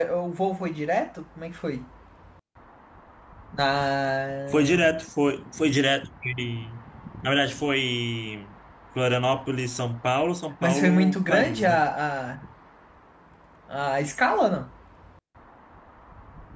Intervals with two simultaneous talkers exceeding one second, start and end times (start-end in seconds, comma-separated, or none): 10.6-11.8